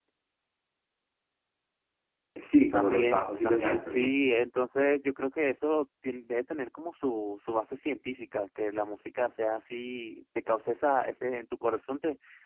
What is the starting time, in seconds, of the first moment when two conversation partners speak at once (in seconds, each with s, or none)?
2.7 s